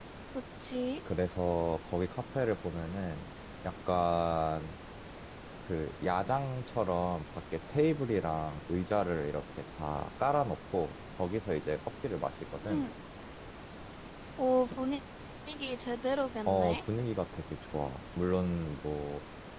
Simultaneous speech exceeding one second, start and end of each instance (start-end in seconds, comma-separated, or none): none